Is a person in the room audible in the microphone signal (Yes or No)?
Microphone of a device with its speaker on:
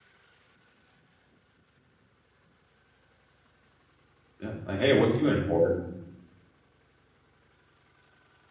Yes